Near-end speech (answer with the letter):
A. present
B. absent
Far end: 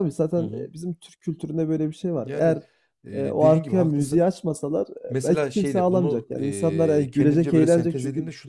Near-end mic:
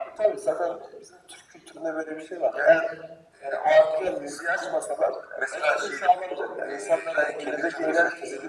B